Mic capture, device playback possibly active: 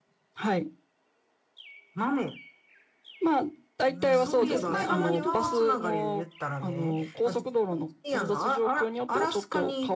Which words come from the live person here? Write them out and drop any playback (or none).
うん。え北海道までは